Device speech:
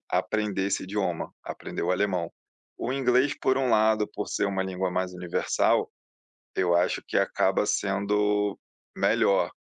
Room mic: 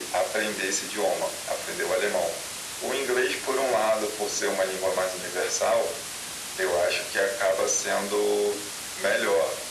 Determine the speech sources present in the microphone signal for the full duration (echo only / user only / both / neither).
echo only